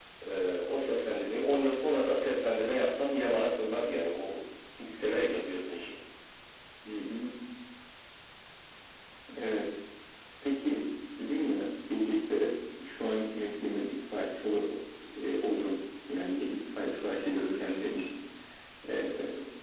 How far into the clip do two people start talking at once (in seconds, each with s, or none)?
none